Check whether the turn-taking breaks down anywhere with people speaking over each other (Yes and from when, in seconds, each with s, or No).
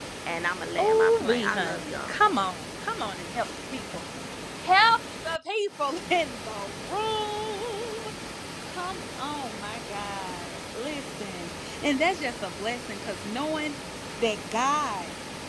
Yes, from 0.8 s